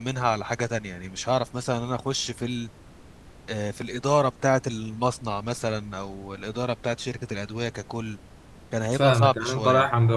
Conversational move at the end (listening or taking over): taking over